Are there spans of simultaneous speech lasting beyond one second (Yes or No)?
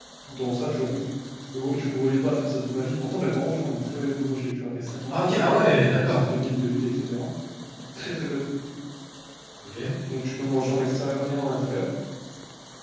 No